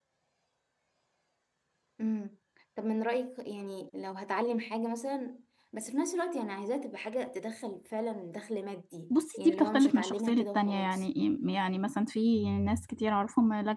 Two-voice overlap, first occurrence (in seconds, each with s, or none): 9.4 s